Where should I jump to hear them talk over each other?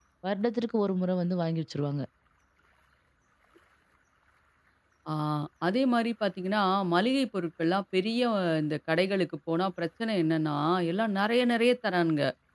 none

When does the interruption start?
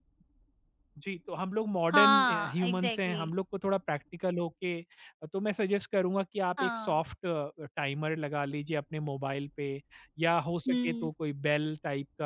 1.9 s

